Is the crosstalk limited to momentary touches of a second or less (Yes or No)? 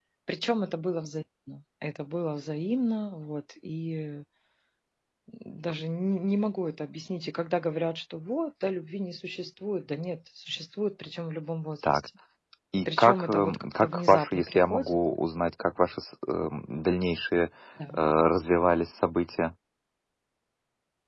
No